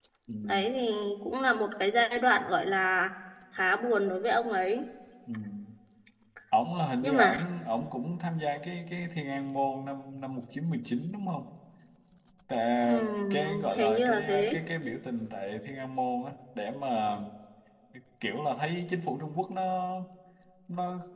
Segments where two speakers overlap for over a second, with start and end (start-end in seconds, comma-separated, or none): 13.3-14.5